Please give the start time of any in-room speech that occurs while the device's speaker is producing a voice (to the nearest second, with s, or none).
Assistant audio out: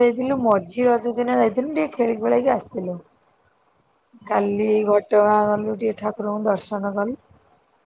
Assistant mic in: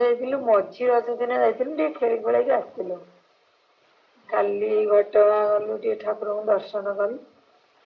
none